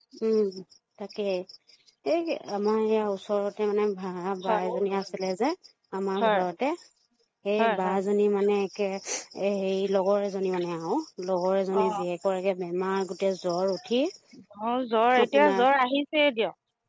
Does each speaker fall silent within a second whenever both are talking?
Yes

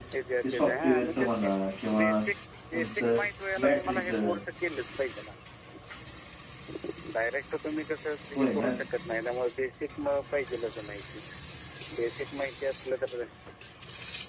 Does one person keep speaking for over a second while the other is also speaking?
Yes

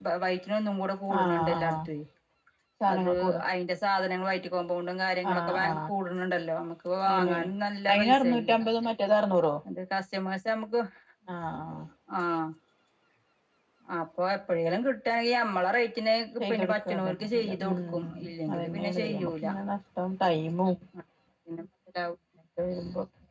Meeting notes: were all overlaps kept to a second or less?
No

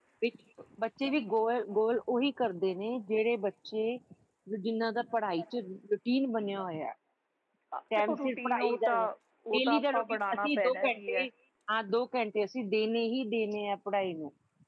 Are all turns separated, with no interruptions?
No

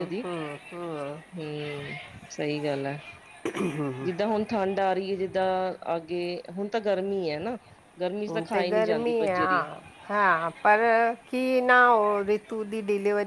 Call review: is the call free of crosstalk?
No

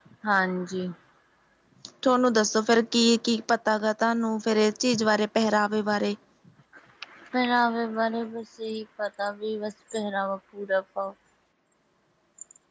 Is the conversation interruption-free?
Yes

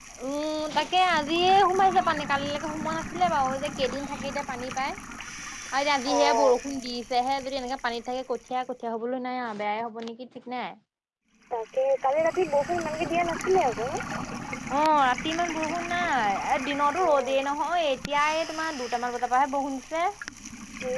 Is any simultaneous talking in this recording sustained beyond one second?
No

